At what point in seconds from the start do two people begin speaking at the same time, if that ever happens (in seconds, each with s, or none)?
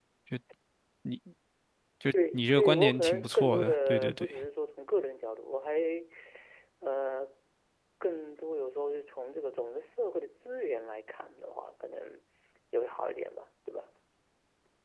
2.3 s